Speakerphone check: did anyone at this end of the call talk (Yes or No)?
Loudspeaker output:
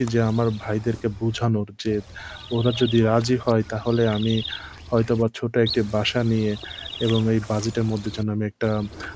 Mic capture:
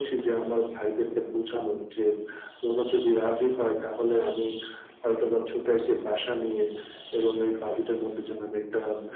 No